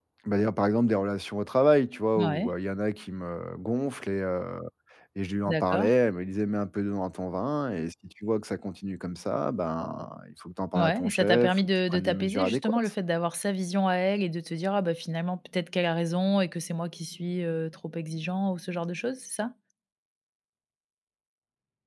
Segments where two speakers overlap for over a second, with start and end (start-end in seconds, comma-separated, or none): 10.8-12.9